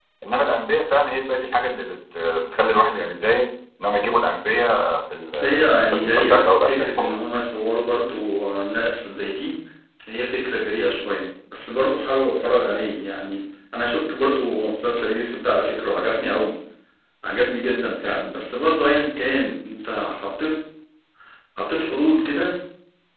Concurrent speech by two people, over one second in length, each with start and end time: 5.3-7.1

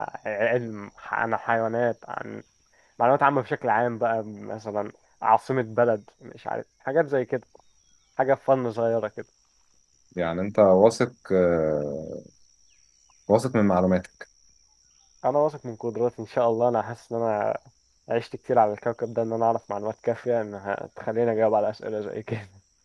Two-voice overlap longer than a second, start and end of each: none

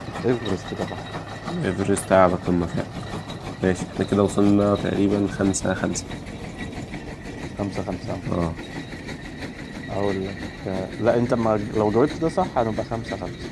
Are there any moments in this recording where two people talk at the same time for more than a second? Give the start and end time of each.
none

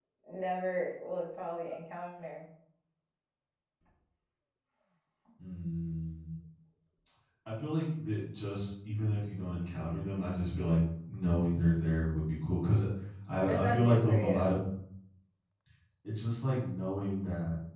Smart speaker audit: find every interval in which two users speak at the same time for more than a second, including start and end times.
13.3-14.6

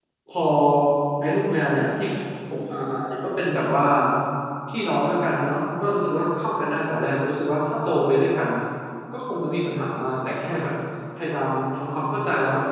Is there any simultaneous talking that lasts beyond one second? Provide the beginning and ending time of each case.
none

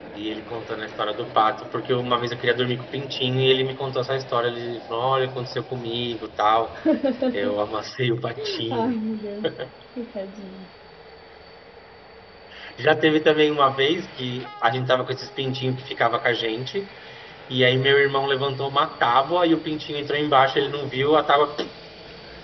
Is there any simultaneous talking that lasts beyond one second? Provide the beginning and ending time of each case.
none

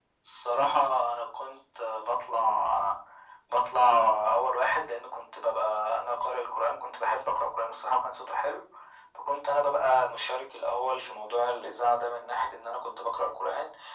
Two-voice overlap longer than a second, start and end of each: none

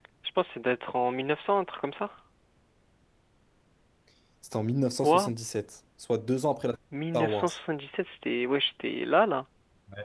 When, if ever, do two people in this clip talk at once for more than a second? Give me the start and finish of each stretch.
none

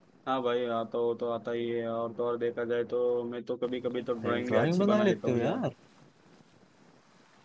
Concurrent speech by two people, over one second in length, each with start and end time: 4.2-5.6

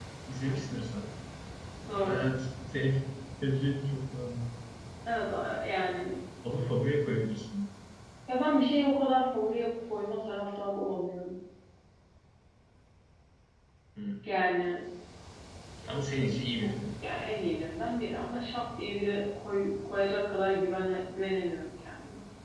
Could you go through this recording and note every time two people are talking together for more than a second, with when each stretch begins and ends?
none

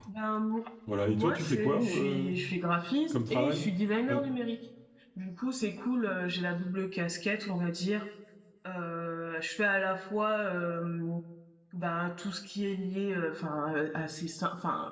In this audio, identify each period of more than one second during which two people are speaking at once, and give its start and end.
1.1-2.3

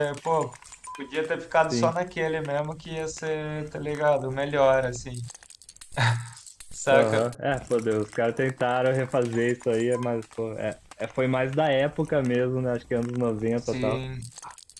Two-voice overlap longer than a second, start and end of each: none

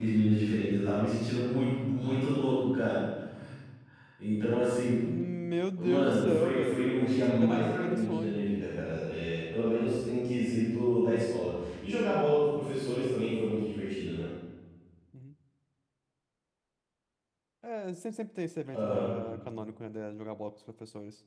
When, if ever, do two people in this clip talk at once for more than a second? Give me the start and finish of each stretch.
5.8-8.5

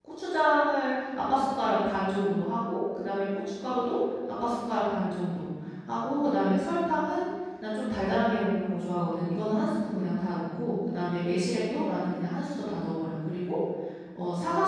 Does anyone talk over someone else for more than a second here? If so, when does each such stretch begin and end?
none

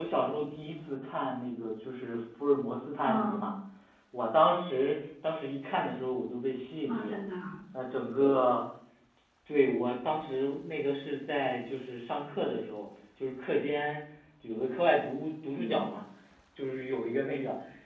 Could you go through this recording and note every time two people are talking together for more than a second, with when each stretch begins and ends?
none

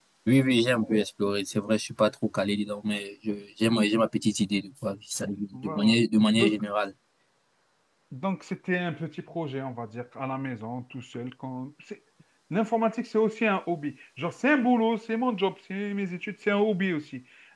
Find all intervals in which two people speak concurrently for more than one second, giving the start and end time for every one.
none

